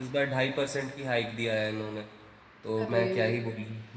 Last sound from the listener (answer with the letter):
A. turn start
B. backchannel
B